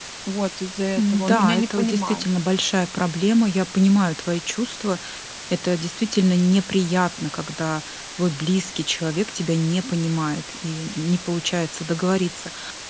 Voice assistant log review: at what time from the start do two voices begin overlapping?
1.0 s

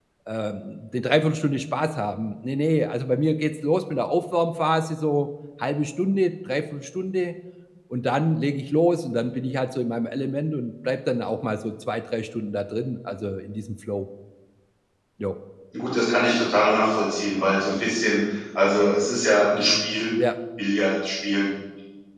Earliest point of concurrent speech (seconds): none

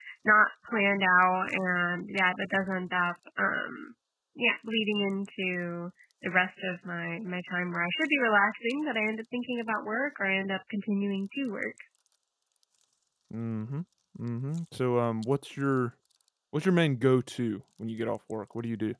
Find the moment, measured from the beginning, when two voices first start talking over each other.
none

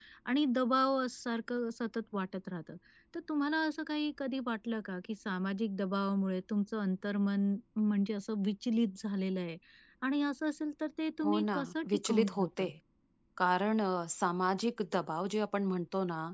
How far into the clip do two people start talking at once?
11.2 s

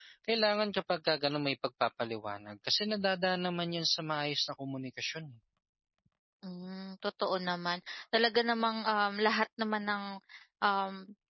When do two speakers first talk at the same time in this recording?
none

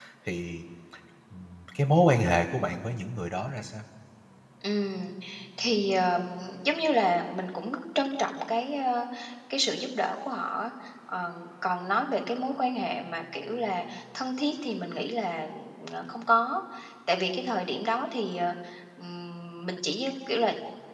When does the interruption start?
none

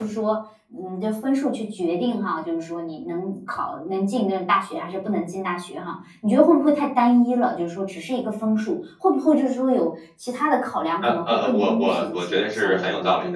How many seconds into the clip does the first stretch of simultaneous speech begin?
11.0 s

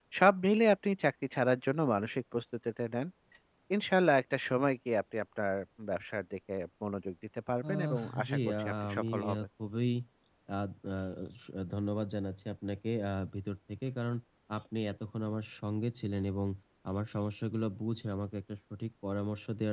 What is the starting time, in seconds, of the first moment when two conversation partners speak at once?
7.6 s

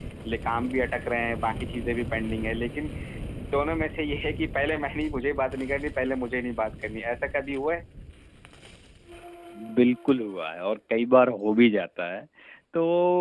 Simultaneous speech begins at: none

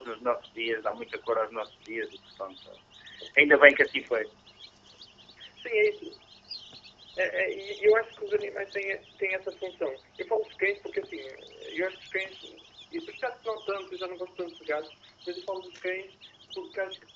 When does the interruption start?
none

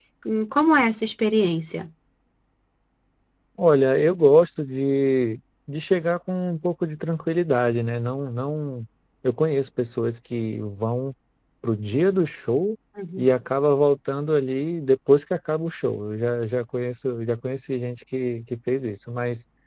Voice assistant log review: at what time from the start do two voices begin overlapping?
none

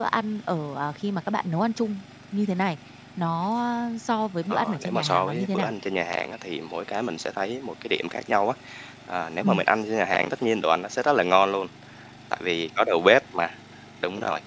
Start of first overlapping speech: 4.5 s

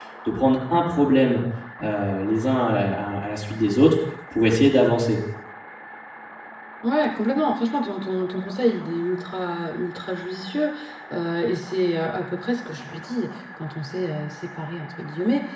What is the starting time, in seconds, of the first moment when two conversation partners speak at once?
none

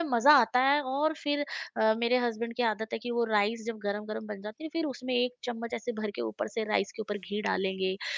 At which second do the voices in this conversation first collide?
none

